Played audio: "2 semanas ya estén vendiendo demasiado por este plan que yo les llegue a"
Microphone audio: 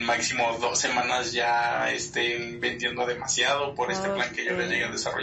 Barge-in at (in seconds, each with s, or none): 3.9 s